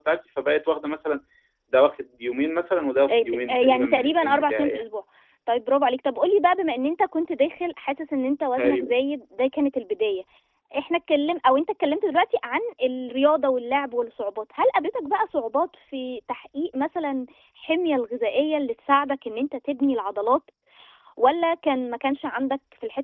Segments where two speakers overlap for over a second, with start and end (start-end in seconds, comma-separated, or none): 3.1-4.9